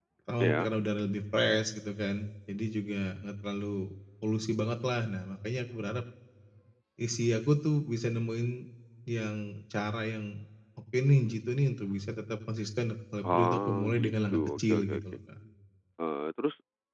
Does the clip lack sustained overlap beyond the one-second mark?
No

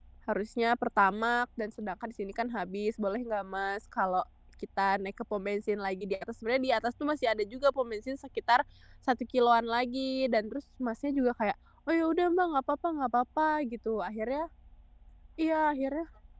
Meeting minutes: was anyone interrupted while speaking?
No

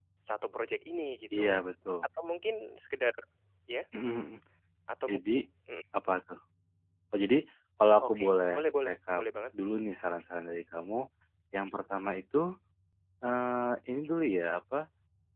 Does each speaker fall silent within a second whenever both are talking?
No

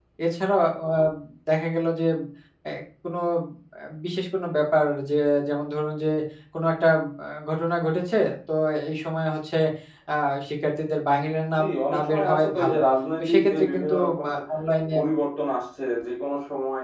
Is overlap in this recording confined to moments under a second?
No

